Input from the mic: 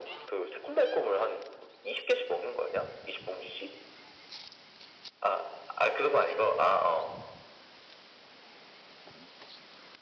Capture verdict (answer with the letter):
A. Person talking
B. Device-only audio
B